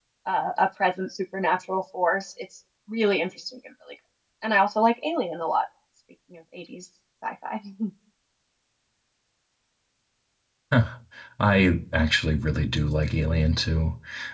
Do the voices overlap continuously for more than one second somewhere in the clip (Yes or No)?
No